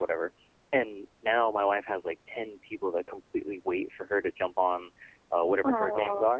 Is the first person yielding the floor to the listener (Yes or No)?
No